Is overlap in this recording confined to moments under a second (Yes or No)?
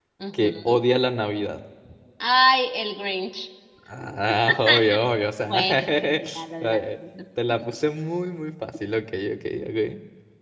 No